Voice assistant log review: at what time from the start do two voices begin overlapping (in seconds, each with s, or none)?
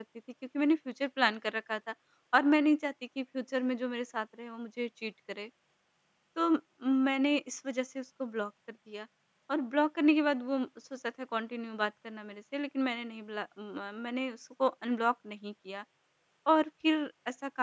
none